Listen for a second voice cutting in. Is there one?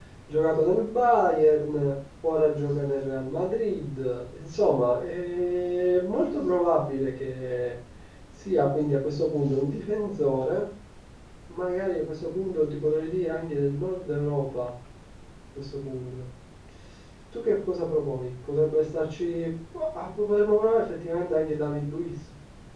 No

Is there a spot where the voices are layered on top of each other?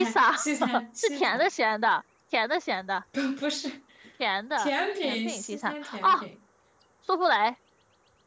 Yes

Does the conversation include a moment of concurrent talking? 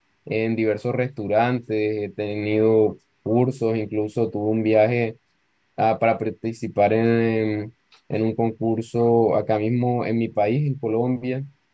No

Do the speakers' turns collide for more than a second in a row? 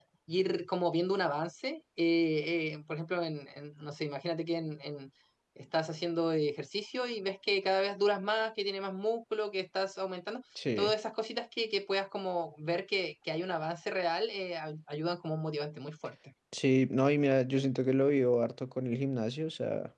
No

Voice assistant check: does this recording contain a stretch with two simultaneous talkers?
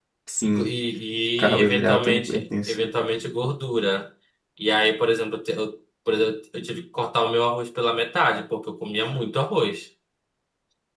Yes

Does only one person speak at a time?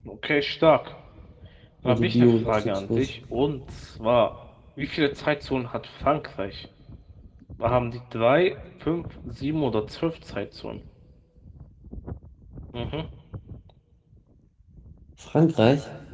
No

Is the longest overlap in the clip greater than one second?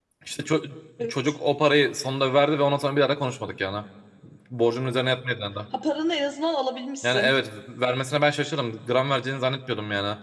No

